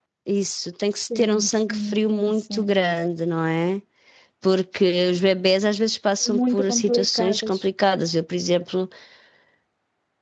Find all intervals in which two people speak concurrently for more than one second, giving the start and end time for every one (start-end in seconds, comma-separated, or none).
1.2-2.7, 6.3-7.6